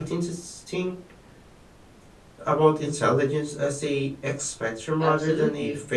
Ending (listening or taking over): taking over